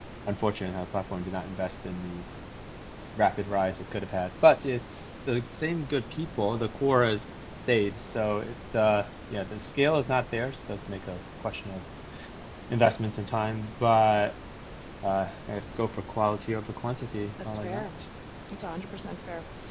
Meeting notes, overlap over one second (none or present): none